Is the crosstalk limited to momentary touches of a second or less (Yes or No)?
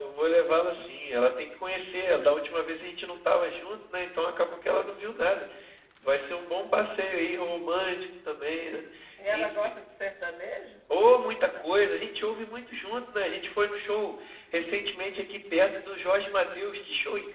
Yes